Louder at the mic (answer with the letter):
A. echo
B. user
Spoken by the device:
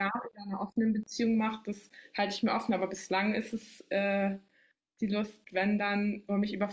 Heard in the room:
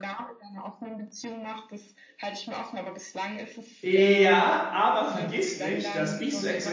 B